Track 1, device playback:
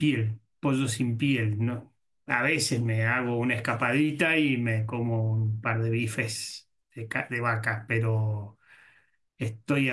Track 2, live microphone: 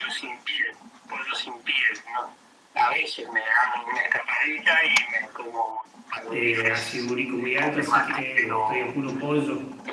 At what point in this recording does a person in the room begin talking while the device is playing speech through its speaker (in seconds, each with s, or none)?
6.3 s